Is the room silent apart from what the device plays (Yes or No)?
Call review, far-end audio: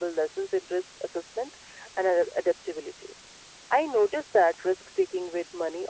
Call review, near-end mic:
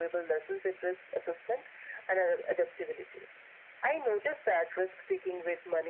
Yes